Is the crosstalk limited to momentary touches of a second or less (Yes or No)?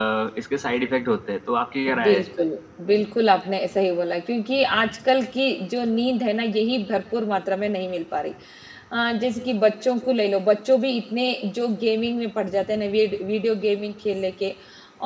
Yes